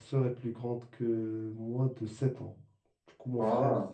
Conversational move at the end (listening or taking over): listening